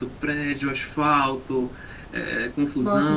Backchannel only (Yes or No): Yes